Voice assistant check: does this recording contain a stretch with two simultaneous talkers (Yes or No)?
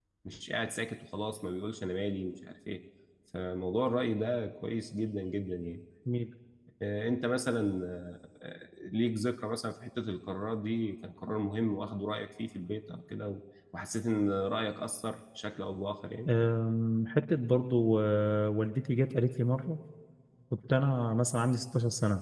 No